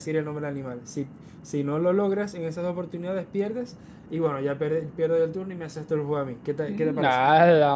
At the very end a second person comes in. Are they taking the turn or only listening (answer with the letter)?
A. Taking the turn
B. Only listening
A